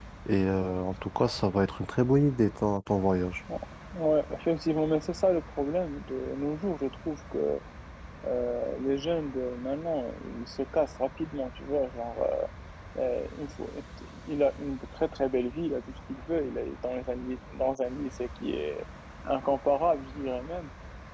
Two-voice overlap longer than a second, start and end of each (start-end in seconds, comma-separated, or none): none